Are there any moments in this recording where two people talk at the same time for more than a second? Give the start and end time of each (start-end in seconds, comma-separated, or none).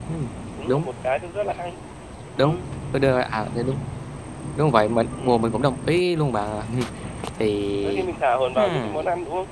none